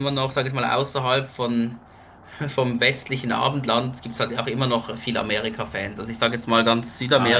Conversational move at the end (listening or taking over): taking over